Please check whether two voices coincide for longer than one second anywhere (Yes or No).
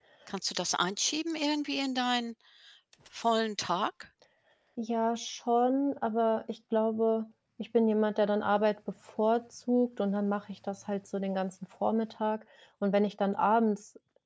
No